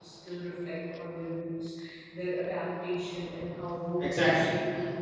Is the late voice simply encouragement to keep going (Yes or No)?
No